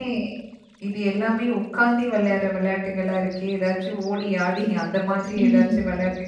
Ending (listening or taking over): listening